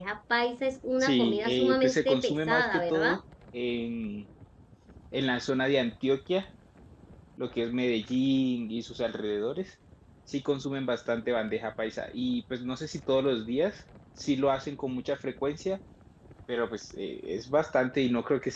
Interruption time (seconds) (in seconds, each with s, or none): 1.0 s